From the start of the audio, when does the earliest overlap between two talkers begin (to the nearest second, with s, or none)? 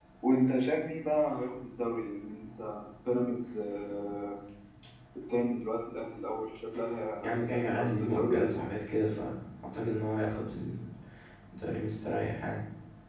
7 s